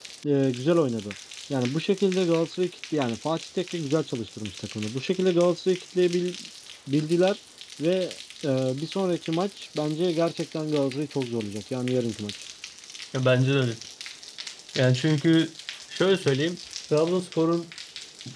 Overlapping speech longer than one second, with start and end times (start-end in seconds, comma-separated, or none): none